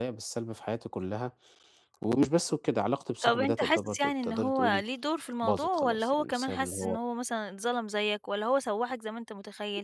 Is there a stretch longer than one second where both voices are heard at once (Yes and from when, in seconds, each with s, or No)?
Yes, from 3.2 s